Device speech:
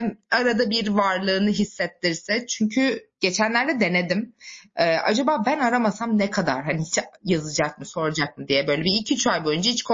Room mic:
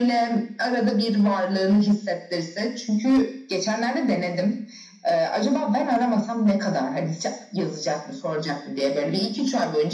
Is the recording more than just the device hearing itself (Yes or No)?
No